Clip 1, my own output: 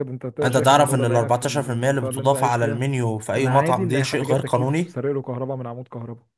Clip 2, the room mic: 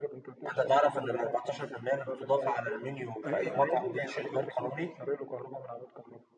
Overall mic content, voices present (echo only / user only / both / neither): both